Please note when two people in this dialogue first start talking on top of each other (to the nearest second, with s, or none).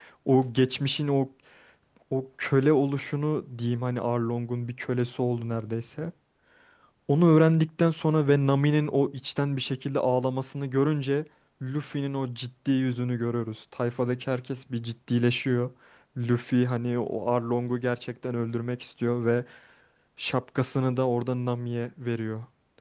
none